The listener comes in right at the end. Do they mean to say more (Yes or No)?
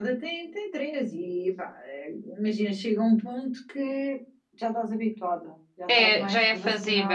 Yes